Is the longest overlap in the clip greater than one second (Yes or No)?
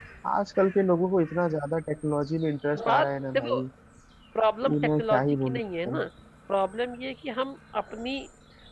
Yes